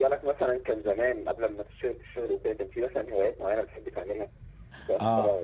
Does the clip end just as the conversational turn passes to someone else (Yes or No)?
Yes